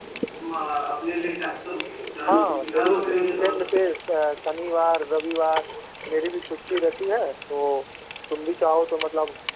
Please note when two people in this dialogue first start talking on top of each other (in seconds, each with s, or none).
2.3 s